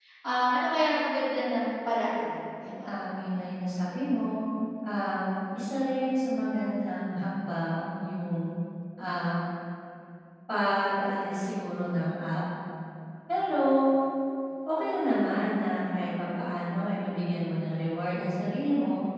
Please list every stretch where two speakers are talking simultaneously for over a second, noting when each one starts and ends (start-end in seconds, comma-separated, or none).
none